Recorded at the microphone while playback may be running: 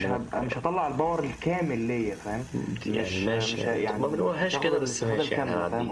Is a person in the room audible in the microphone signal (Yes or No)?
No